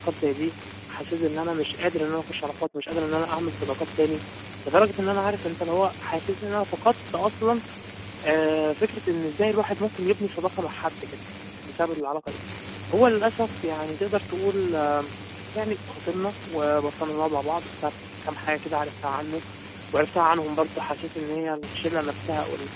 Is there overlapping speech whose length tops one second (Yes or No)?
No